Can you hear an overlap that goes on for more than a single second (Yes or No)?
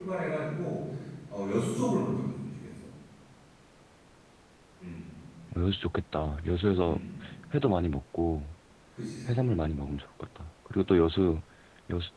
No